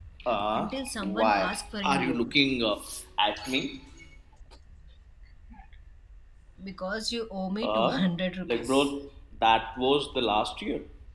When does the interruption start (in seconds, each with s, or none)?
0.5 s